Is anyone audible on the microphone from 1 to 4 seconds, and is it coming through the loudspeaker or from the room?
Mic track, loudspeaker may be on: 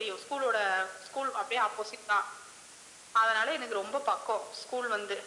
echo only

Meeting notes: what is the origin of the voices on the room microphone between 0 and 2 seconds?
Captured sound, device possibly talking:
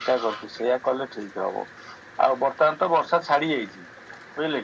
echo only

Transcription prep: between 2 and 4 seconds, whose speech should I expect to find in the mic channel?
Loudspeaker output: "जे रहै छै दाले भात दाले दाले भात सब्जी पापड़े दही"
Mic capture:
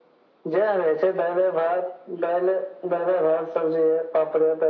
echo only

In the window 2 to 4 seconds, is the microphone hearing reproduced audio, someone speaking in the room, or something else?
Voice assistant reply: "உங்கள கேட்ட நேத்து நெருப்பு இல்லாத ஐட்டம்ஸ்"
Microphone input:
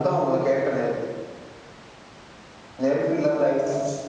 echo only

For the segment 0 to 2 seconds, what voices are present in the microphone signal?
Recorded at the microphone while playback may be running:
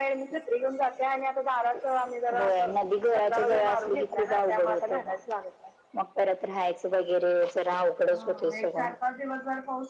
echo only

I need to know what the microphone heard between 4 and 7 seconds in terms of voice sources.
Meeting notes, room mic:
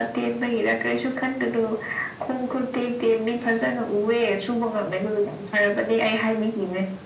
echo only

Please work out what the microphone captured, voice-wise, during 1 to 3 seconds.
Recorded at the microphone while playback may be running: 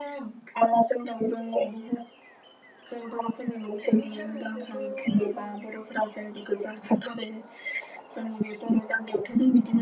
echo only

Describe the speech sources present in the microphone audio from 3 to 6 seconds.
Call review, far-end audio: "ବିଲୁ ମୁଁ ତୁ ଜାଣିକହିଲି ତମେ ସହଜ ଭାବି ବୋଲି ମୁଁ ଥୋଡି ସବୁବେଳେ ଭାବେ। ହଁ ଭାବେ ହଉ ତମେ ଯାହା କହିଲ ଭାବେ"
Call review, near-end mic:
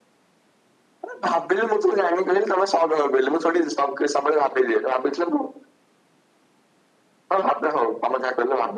echo only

